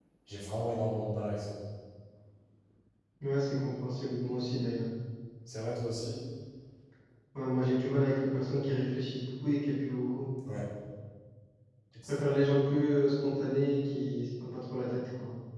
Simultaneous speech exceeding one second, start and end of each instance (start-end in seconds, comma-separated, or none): none